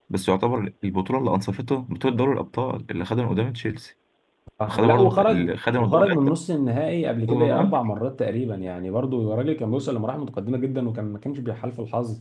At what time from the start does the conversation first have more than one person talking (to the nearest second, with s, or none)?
5 s